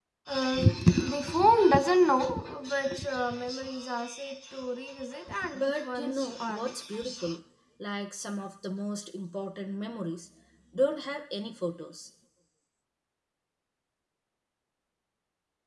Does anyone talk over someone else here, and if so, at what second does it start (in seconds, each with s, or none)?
5.5 s